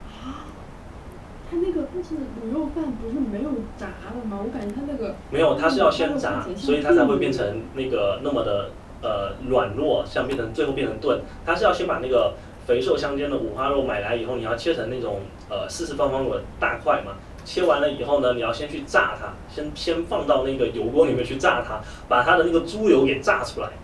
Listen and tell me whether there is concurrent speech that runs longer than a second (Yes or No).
Yes